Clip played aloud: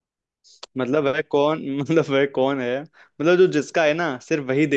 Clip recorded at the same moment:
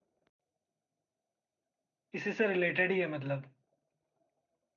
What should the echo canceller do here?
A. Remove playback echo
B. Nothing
B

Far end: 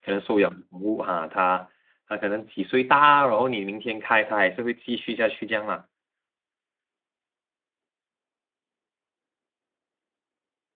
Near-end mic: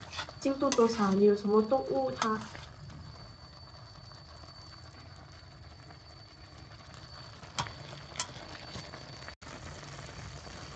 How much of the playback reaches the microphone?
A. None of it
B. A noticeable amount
A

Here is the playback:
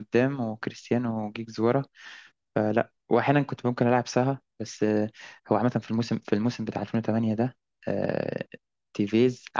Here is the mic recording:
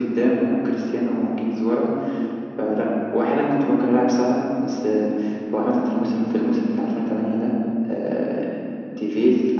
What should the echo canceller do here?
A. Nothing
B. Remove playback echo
B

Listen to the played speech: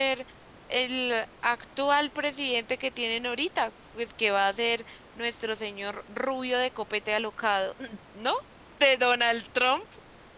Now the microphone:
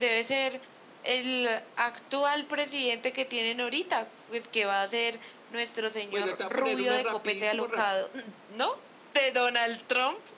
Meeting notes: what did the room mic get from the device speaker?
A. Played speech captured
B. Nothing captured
A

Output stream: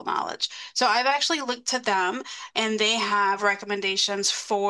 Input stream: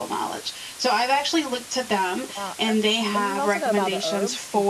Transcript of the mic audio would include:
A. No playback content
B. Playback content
B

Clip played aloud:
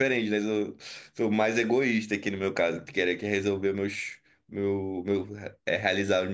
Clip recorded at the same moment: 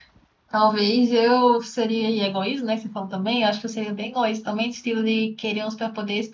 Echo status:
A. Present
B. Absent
B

